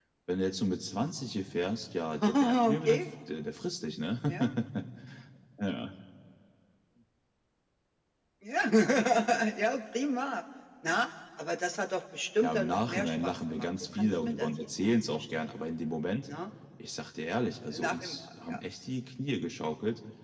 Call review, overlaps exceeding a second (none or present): present